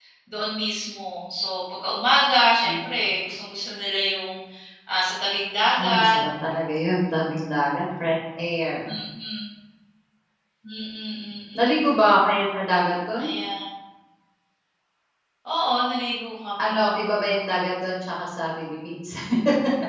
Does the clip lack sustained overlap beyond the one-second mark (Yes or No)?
Yes